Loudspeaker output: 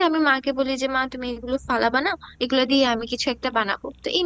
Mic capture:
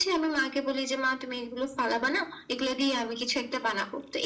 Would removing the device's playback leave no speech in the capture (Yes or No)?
Yes